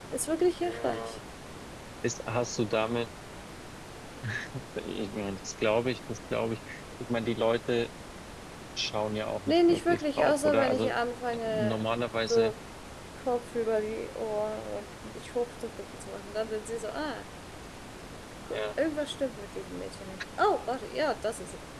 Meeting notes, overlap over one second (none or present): present